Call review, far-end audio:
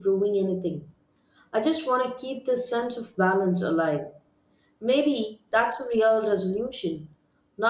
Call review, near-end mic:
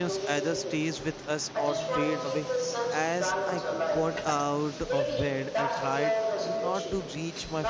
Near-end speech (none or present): present